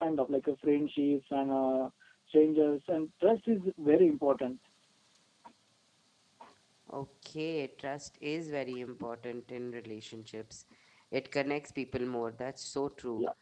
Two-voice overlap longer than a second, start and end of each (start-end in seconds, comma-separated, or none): none